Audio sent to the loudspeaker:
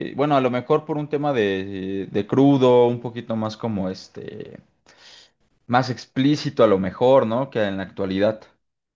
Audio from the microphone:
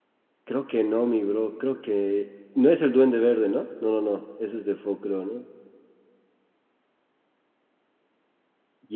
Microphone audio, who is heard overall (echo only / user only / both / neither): user only